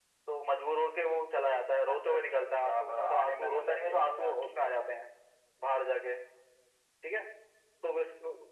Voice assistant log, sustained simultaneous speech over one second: present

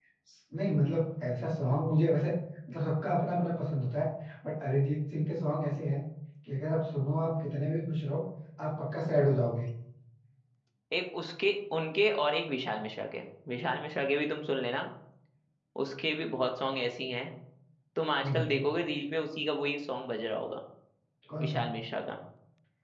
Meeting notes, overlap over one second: none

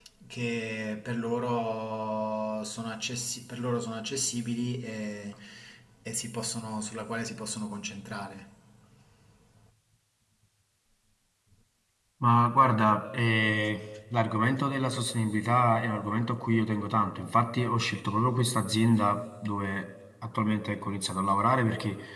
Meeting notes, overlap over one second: none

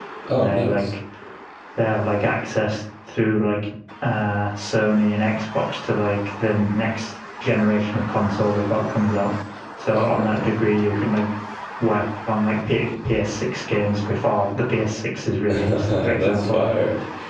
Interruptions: present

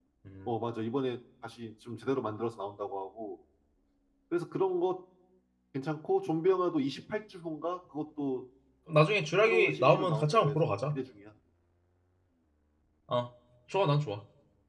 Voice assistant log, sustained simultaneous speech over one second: present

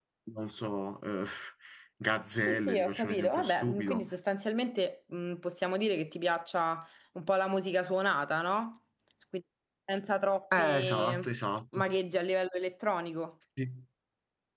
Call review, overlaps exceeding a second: present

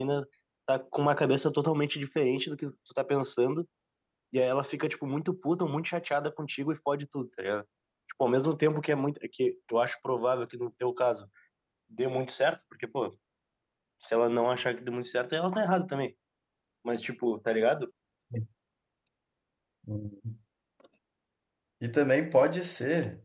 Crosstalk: none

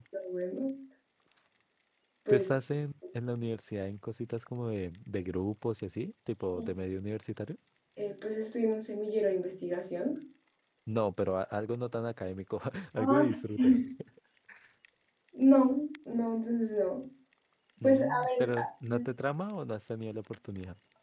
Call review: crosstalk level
present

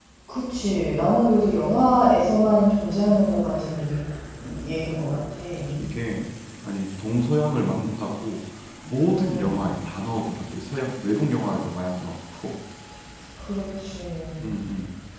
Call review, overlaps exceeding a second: none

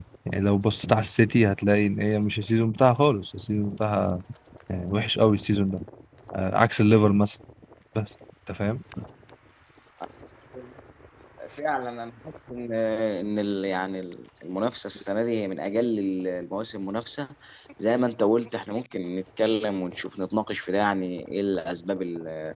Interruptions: none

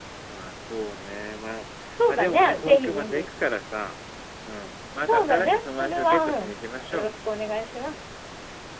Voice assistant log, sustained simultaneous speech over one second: present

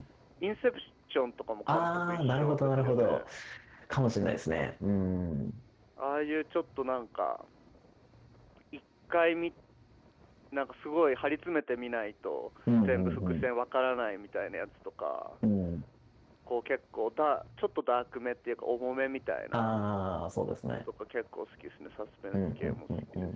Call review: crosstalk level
present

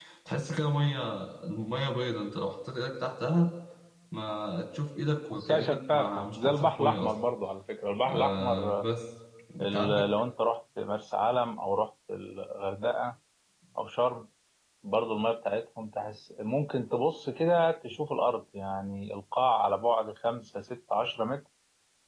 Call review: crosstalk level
present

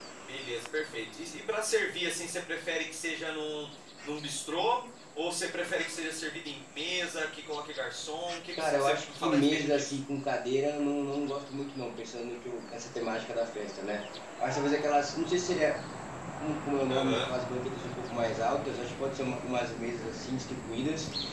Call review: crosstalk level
present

